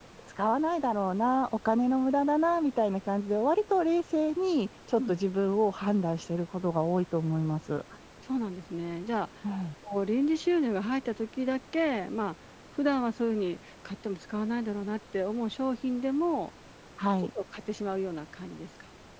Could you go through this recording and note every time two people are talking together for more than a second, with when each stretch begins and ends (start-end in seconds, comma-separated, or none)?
none